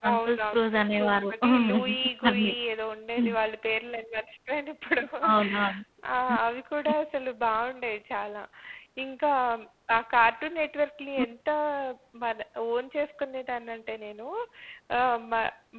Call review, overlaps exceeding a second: present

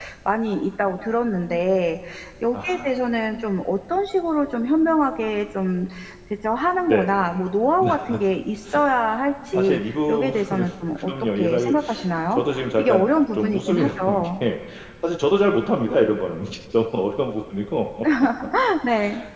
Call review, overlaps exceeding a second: present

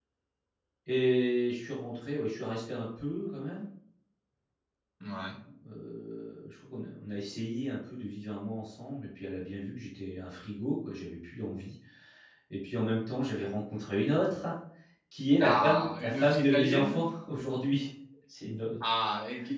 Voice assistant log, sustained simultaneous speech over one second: present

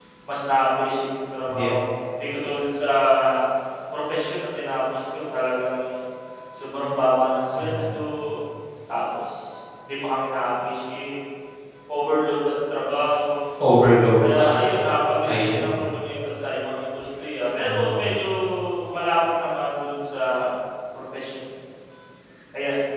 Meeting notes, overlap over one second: none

